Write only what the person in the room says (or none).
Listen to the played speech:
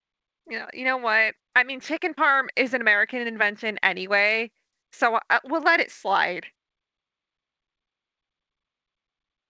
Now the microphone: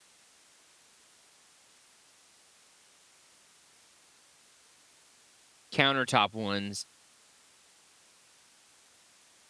countertop ones